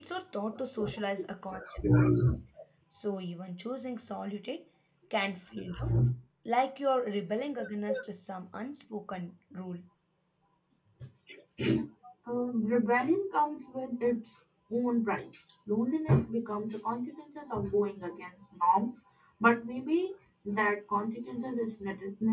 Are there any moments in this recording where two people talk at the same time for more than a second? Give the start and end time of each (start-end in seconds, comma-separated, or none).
none